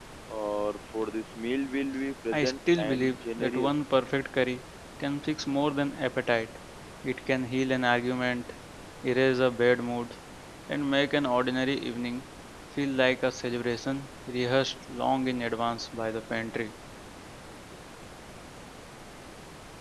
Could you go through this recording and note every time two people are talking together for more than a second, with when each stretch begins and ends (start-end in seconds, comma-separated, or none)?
2.3-3.8